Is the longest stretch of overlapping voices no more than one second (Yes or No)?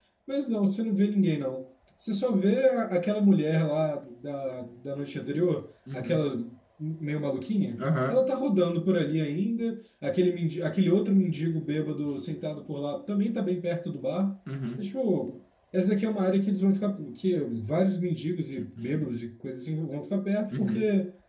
Yes